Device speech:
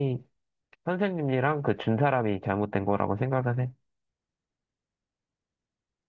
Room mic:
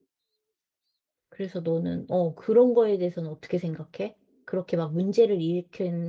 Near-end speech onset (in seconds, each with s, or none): 1.3 s